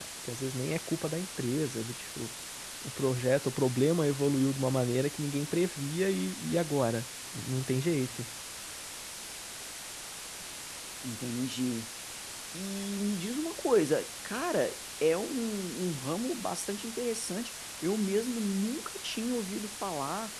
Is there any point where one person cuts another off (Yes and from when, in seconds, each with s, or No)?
No